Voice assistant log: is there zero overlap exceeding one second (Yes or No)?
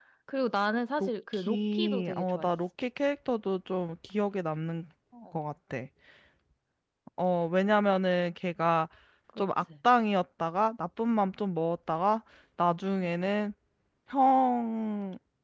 No